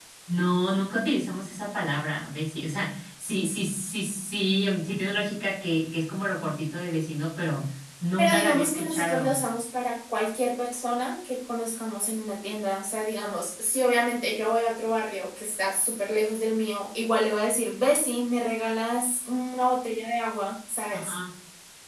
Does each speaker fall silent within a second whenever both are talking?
No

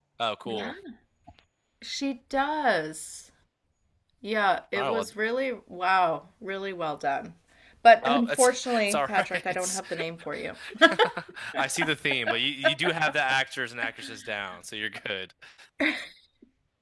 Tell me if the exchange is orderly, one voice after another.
No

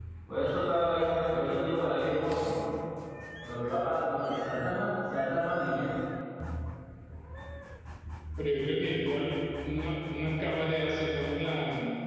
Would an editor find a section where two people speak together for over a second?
No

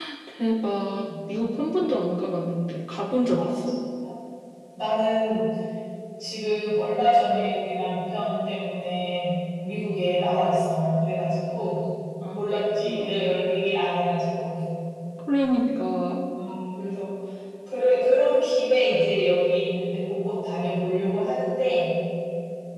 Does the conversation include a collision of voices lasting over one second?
No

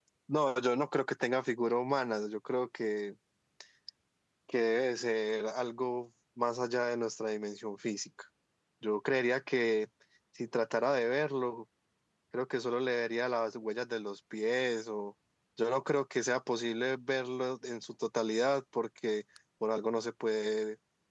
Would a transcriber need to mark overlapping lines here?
No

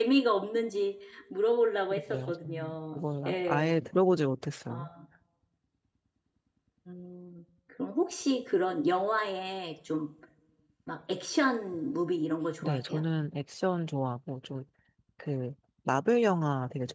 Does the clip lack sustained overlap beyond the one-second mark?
No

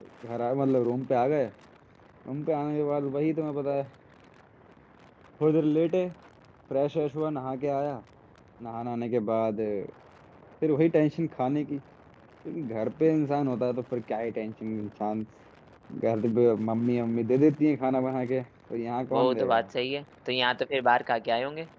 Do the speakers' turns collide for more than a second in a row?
No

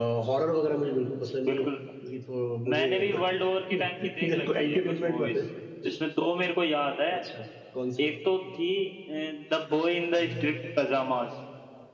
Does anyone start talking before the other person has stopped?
Yes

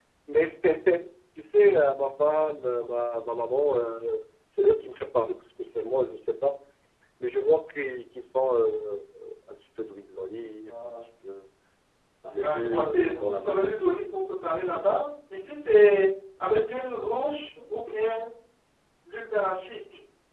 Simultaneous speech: Yes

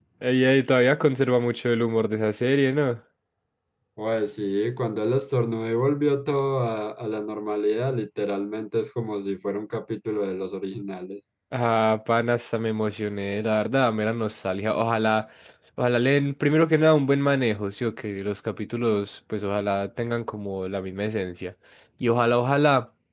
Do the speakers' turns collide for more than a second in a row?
No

